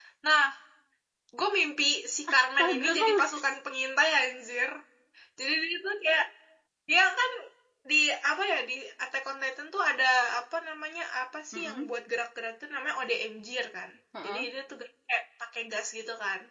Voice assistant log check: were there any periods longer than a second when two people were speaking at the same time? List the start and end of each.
2.3-3.5

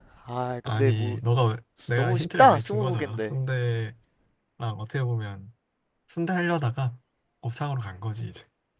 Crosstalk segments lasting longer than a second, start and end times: 2.0-3.3

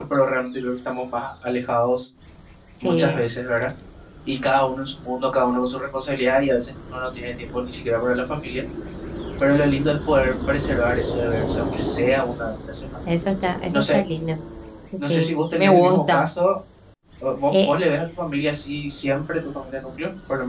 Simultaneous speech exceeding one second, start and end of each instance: 15.0-16.3

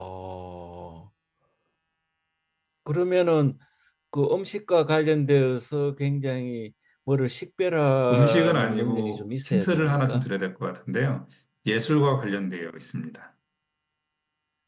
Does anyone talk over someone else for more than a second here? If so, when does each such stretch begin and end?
8.1-10.3

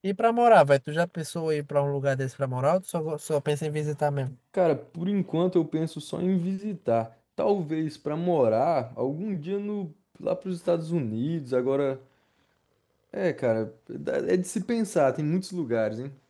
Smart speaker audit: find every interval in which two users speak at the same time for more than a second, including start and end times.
none

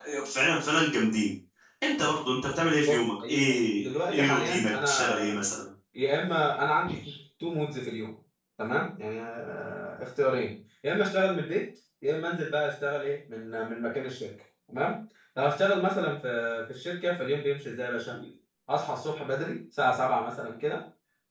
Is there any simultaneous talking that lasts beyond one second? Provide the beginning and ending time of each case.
2.9-5.4

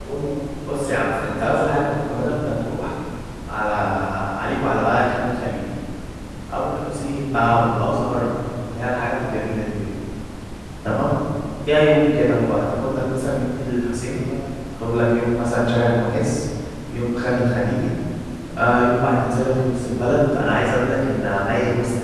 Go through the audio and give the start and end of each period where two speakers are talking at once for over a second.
0.7-2.3

